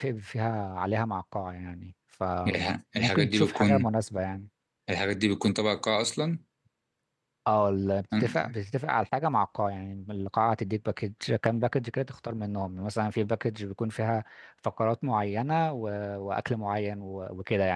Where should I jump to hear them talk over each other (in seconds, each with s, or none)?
2.5 s